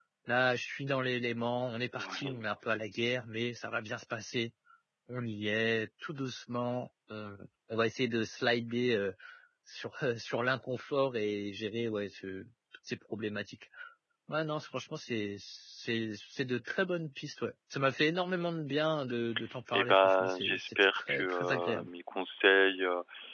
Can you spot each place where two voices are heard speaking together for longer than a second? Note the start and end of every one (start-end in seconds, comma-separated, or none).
19.7-21.9